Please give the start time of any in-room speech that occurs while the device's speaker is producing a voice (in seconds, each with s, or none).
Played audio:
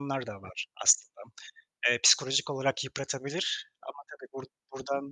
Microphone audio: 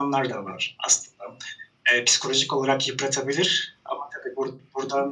none